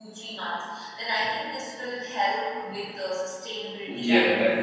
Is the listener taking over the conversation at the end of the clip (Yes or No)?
Yes